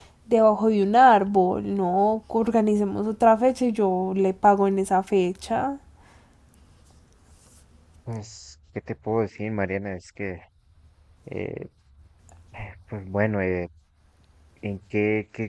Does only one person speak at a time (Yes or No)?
Yes